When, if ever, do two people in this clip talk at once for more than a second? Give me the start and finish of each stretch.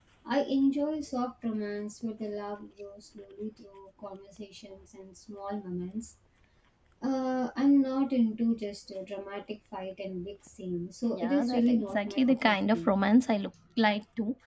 11.1-12.9

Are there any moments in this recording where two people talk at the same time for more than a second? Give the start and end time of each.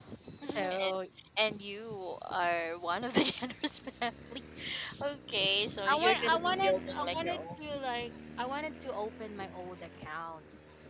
5.9-7.8

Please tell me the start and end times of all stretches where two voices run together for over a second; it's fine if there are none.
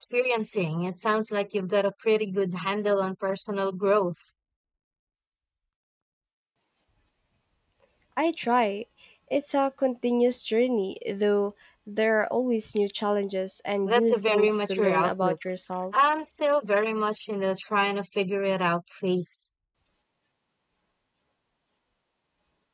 13.8-15.3

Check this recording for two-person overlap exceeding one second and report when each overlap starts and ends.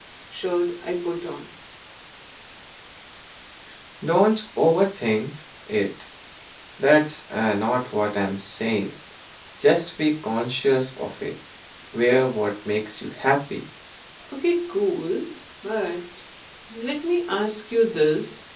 none

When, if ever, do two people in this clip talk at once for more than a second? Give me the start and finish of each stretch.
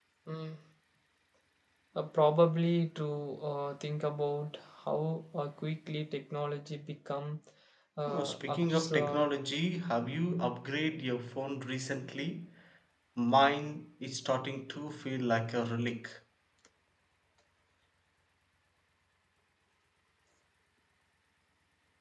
8.1-9.3

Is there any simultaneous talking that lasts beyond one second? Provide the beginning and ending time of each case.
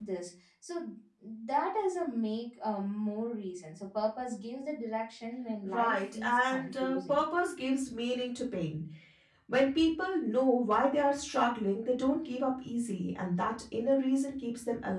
5.6-7.2

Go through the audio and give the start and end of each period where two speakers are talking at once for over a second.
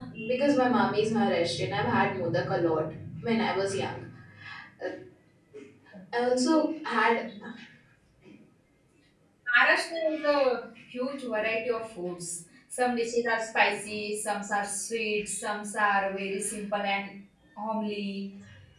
none

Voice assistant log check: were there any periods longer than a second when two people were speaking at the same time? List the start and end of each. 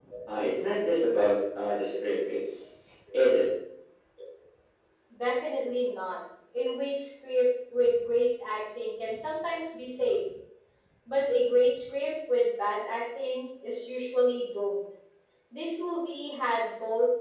none

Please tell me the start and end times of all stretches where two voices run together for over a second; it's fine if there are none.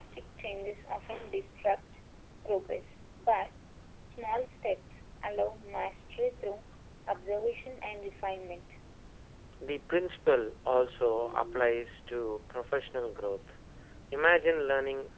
none

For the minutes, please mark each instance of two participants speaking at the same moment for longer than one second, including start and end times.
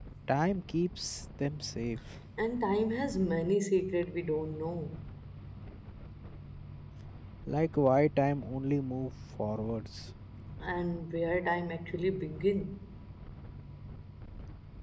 none

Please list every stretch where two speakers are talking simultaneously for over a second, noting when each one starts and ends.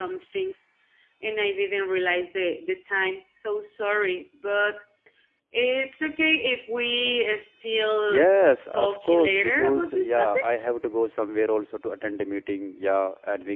8.7-10.5

